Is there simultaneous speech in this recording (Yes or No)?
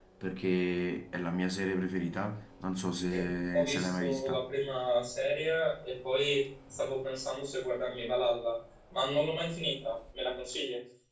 Yes